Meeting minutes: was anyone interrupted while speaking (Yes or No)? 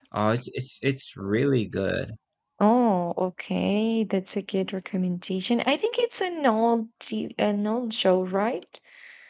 No